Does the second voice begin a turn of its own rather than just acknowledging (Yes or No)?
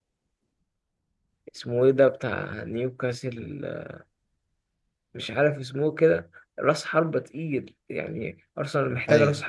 No